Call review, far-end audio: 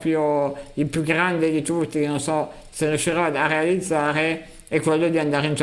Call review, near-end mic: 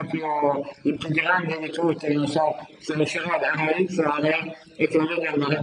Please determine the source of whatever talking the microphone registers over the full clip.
echo only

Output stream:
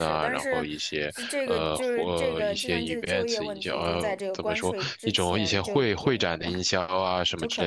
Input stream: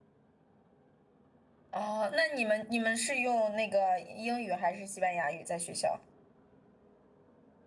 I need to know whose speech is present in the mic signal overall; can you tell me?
user only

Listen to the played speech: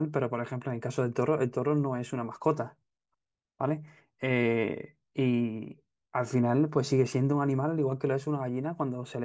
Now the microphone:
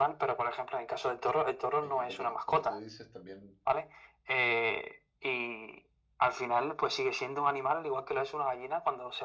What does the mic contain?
both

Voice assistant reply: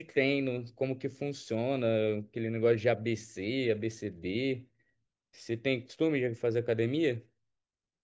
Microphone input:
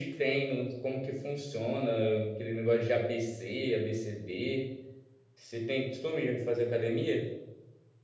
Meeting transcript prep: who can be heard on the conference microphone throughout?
echo only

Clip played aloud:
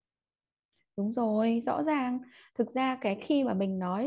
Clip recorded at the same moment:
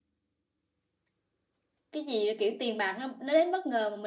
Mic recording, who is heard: user only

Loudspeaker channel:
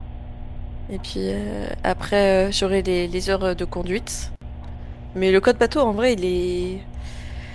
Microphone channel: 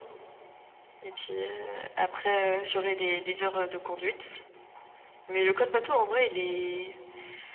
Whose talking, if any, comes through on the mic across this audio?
echo only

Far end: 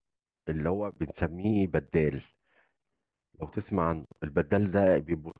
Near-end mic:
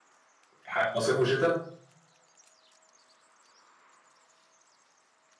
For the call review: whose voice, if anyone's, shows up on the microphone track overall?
user only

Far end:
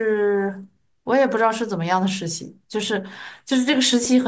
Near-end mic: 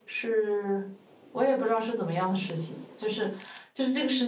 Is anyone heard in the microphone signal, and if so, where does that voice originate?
echo only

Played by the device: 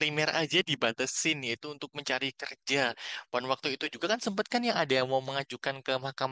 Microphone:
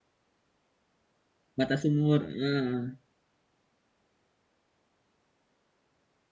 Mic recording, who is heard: user only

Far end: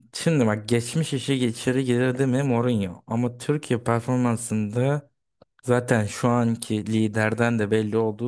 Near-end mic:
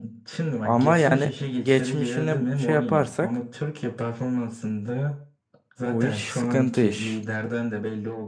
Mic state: both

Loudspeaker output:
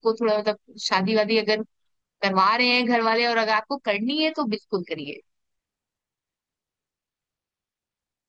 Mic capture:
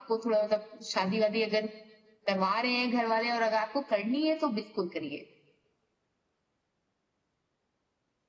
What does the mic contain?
echo only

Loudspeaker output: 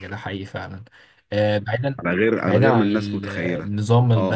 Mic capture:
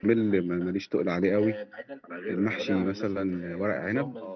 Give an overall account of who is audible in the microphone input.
both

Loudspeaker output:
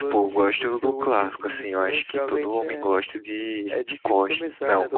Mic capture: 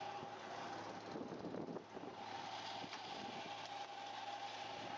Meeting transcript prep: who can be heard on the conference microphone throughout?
neither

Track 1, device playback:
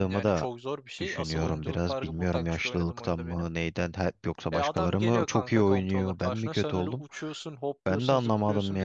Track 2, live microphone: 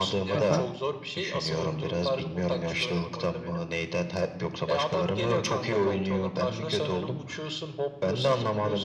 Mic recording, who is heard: both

